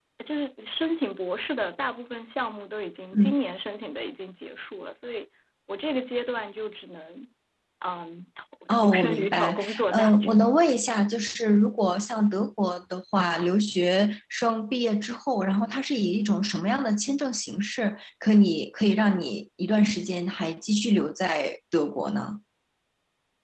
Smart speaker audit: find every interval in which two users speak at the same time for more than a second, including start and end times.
8.7-10.4

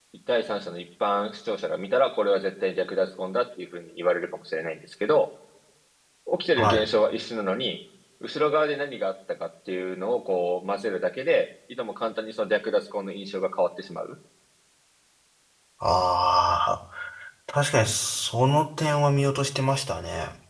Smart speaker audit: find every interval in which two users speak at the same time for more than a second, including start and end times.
none

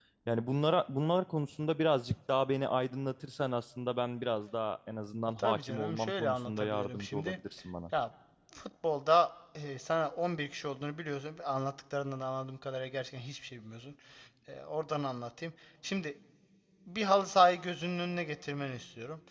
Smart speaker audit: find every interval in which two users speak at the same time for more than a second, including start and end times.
5.4-7.4

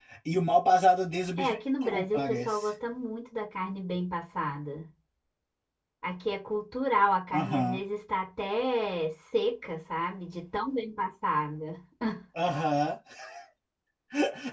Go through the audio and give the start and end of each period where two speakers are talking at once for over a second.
1.4-2.7

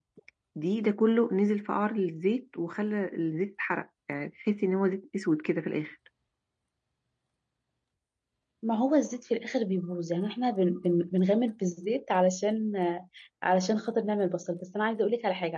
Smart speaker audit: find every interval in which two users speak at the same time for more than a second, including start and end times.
none

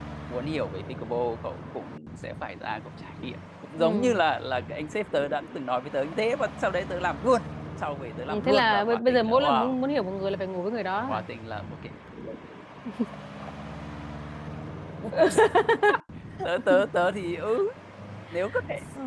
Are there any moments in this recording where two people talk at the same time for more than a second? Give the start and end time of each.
8.3-9.7

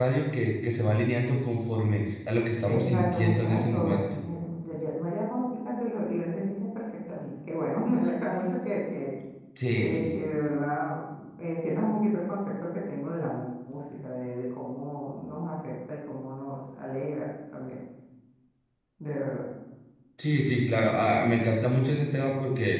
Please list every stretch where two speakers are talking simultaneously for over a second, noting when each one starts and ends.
2.6-4.0

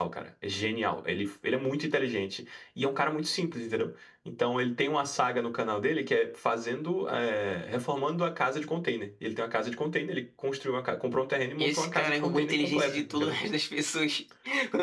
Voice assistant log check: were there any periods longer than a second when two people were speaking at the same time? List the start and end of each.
11.6-13.3

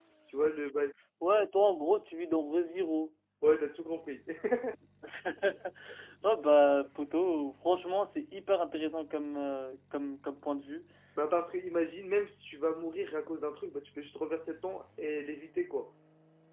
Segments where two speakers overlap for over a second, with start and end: none

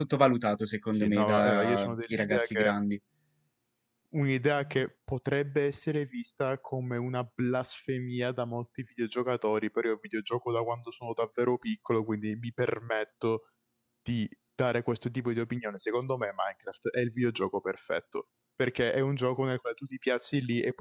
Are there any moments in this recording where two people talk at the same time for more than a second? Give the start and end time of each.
0.9-2.8

